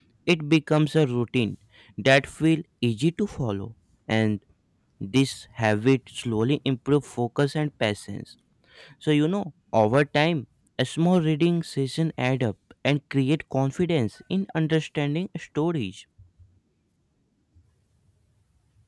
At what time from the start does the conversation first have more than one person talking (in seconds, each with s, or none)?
none